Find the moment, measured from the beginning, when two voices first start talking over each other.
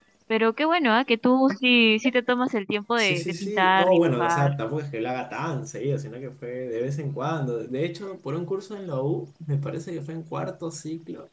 3.0 s

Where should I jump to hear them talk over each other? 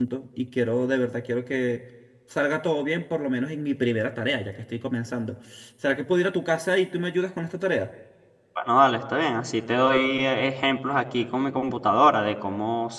none

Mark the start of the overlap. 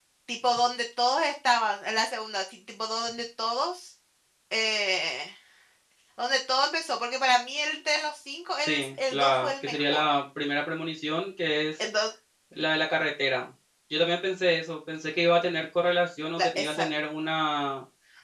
8.6 s

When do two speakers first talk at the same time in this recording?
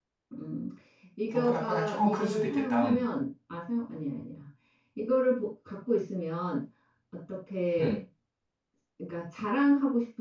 1.3 s

